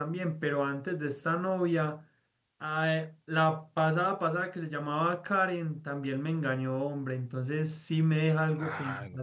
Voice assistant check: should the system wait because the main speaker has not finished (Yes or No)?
Yes